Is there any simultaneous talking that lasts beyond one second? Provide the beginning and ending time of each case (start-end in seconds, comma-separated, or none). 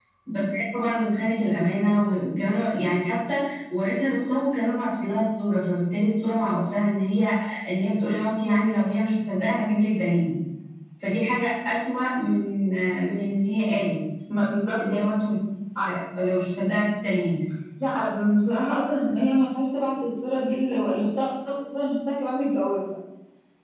none